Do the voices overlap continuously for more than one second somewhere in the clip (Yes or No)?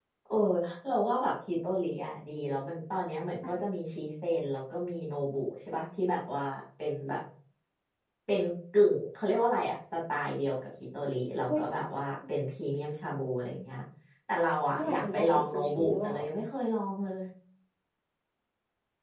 Yes